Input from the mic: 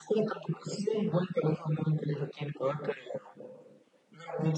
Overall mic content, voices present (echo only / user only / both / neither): echo only